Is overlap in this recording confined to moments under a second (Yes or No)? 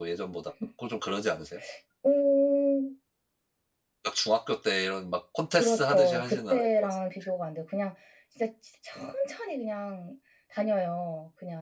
No